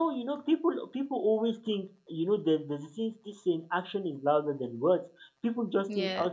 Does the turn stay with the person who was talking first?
Yes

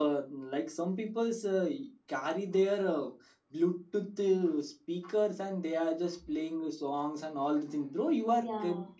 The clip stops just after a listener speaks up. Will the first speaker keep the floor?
Yes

